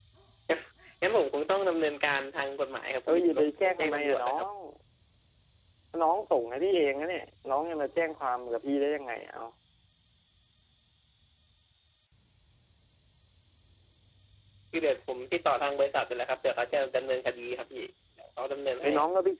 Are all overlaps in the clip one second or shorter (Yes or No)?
No